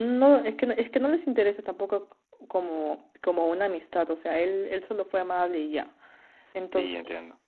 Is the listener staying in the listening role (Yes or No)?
No